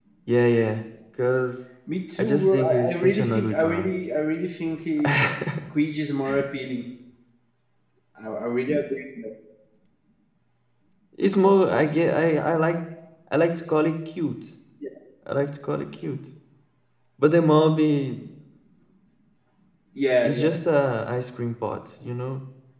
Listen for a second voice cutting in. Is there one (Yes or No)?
Yes